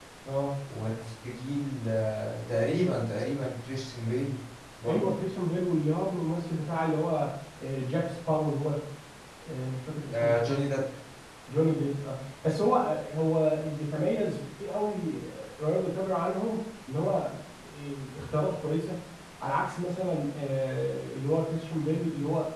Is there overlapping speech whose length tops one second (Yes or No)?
No